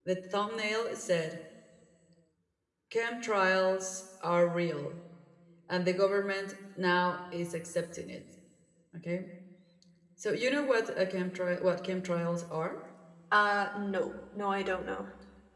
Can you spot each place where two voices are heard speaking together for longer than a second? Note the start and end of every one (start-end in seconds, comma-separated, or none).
none